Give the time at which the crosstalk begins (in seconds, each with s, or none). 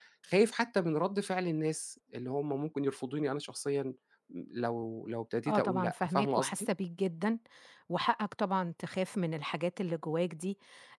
5.5 s